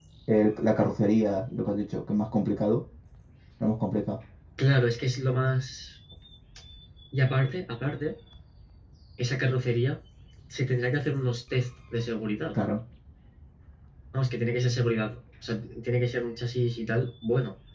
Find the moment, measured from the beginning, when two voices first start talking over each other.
none

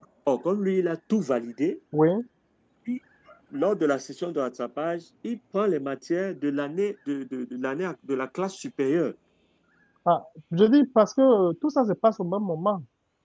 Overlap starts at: none

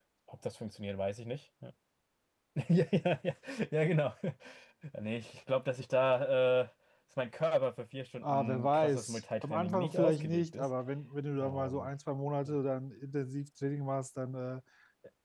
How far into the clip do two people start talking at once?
8.2 s

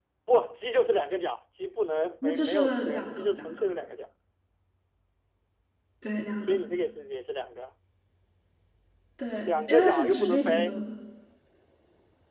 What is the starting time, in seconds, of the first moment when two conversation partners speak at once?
2.2 s

